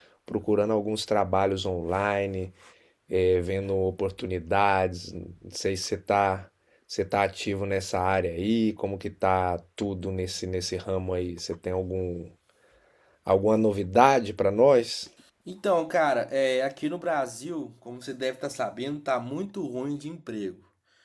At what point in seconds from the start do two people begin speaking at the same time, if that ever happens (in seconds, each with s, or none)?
none